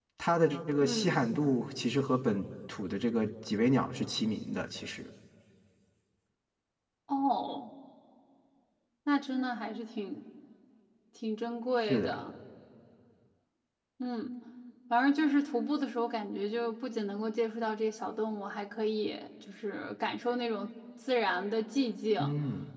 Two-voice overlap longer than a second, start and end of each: none

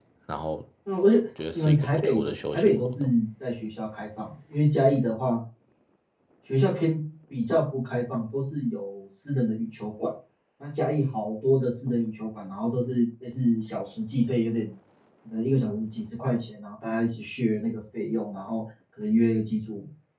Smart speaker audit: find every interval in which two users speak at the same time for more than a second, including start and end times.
1.5-3.1

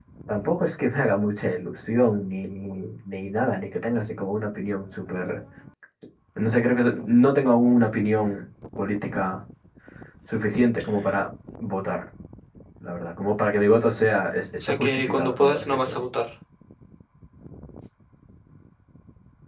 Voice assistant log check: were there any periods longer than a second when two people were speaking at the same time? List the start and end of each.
14.7-16.1

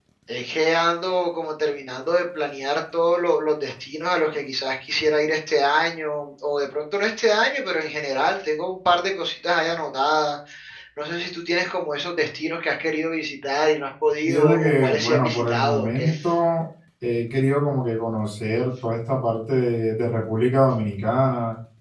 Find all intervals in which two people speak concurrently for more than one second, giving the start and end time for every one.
14.2-16.1

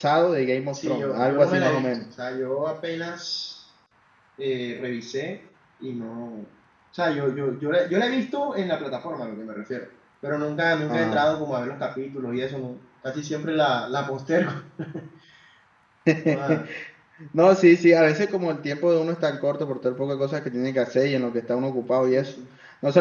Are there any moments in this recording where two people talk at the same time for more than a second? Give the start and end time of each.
0.7-2.0

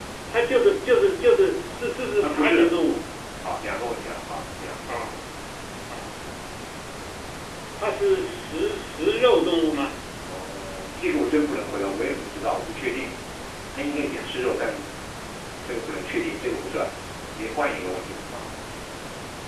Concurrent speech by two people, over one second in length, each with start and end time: none

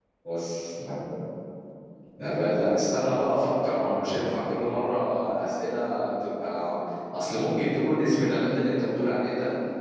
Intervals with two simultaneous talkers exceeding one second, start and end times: none

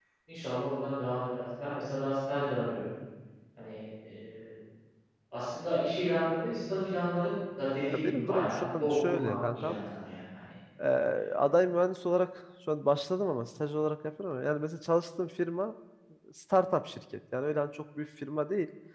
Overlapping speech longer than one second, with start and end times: 7.8-9.8

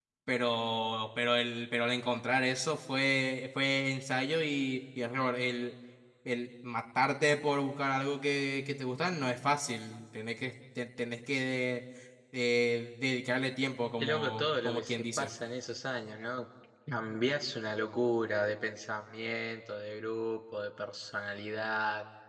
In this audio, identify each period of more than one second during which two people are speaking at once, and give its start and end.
14.0-15.3

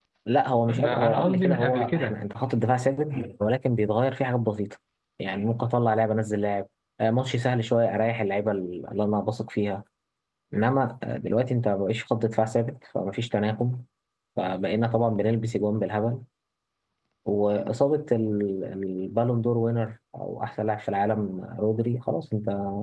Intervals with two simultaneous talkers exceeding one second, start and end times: 0.7-2.2

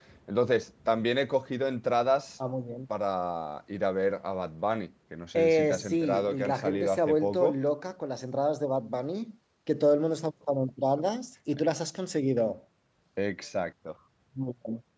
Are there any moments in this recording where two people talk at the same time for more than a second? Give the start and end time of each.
5.4-7.5

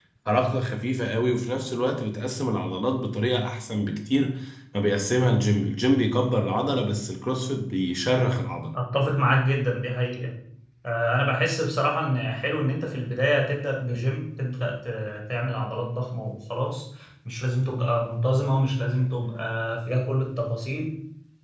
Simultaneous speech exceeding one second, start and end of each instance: none

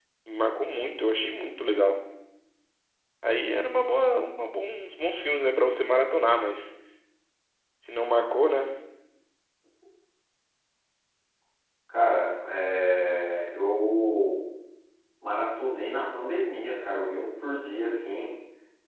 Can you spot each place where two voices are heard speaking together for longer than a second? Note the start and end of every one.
none

